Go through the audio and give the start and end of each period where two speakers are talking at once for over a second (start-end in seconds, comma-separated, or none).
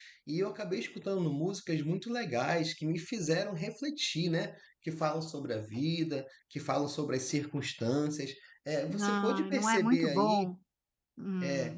8.9-10.5